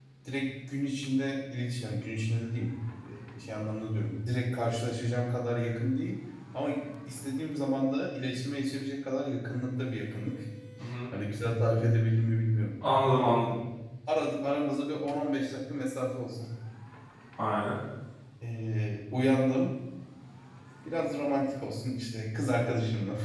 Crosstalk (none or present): none